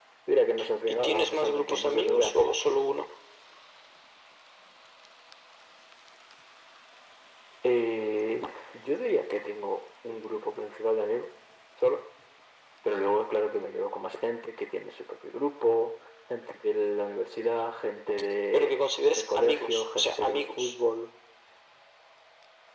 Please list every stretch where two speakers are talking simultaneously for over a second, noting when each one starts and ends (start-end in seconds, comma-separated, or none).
0.9-2.5, 18.5-20.6